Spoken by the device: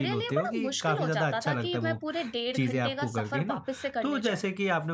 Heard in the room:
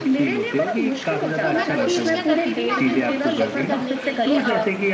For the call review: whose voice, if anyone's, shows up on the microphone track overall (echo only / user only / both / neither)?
both